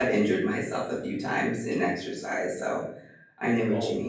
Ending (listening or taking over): taking over